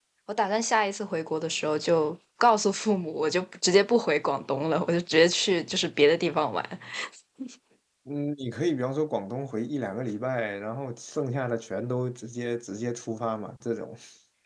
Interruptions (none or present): none